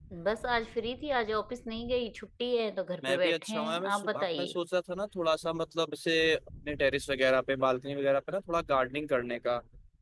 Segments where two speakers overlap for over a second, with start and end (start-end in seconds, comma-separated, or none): 3.1-4.5